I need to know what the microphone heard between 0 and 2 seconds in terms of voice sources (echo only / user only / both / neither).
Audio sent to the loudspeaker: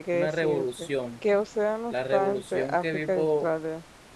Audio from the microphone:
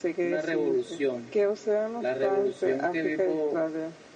echo only